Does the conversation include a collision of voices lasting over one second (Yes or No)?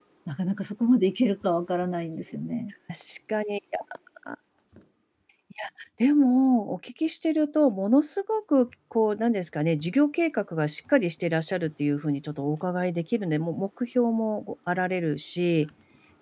No